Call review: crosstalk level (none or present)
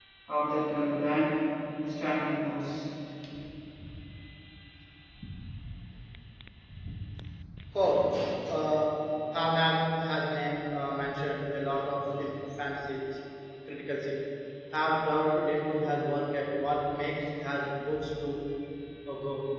none